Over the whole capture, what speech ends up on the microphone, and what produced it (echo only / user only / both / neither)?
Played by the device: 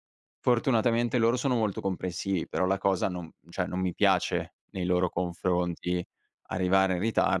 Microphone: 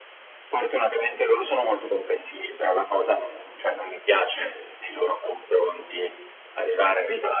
echo only